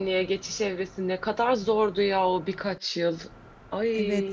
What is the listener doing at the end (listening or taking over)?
taking over